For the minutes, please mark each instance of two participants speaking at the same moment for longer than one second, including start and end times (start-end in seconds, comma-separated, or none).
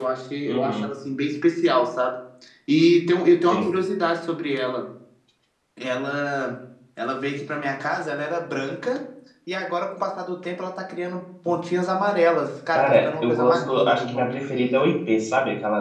12.8-14.3